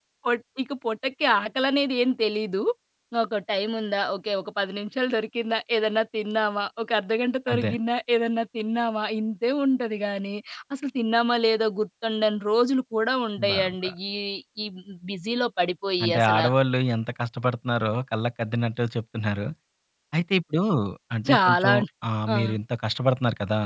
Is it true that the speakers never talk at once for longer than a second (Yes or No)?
Yes